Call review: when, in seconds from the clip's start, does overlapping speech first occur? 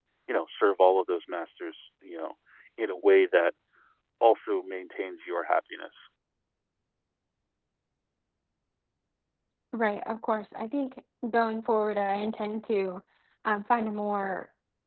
none

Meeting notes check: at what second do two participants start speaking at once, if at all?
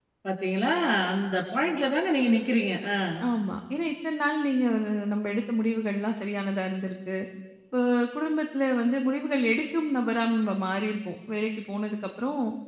none

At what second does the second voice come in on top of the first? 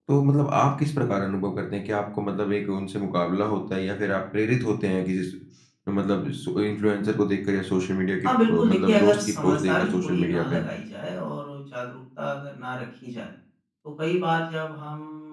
8.2 s

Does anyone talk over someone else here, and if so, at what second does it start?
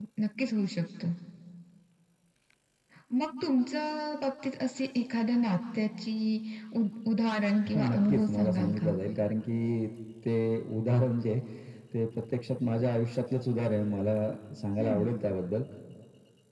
7.7 s

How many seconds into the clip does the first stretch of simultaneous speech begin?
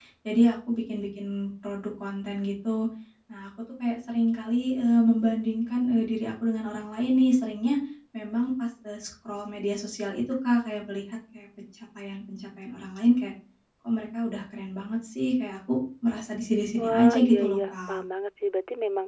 16.8 s

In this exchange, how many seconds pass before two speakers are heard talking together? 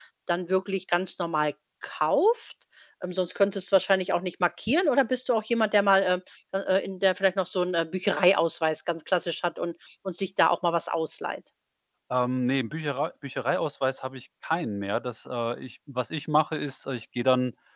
none

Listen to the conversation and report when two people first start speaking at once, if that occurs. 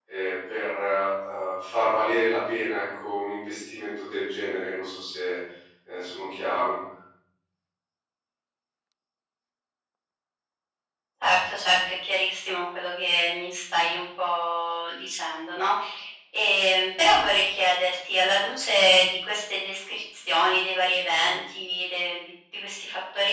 none

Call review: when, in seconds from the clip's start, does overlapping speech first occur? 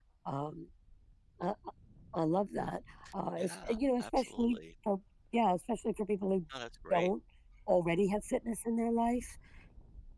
3.4 s

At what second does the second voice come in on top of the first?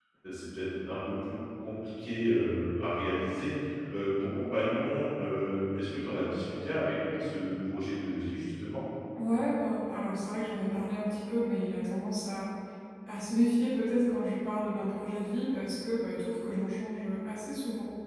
none

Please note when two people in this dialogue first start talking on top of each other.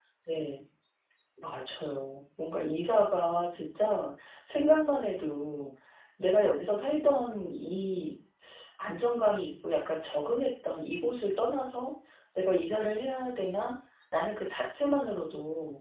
none

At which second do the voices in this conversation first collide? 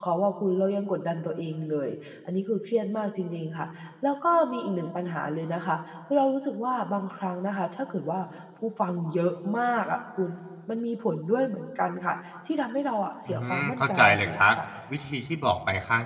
13.3 s

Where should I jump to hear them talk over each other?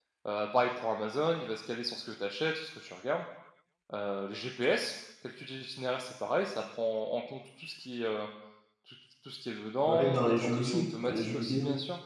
9.9 s

